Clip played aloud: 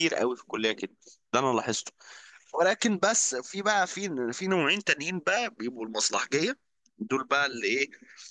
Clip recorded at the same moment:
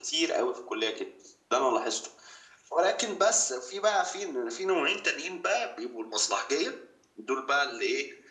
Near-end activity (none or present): none